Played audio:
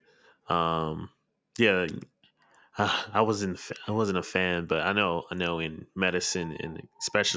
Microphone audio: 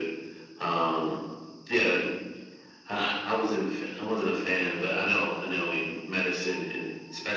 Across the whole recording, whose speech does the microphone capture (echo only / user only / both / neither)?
echo only